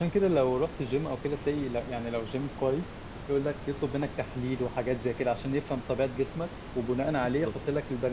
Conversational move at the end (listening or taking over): listening